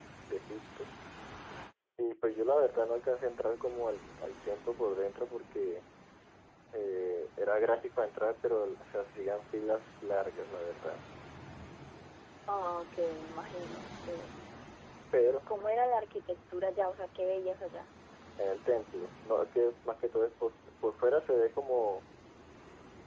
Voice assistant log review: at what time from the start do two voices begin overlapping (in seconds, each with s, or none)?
none